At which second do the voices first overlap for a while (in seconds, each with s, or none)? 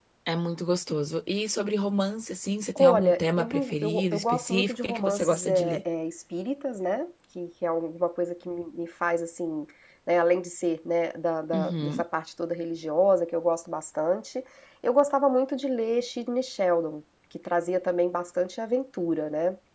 2.8 s